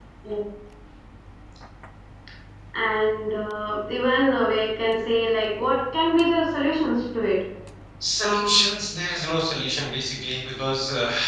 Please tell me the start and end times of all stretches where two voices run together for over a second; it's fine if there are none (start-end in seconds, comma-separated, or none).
none